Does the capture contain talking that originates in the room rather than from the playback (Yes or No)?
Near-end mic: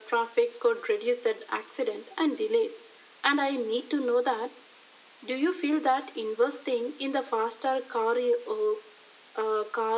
No